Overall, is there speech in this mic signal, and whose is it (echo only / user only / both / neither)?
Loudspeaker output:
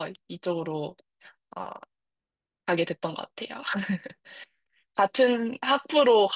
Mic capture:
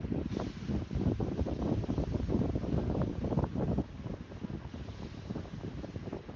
neither